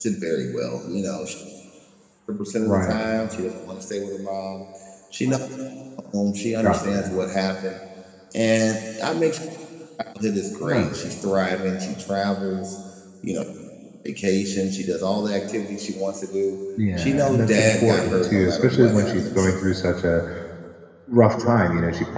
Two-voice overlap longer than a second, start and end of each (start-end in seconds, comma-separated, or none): 17.0-19.5